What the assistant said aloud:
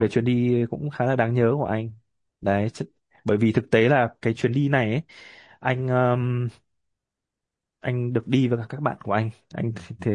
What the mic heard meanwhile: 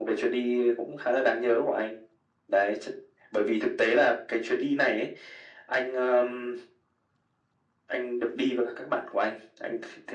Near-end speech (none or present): none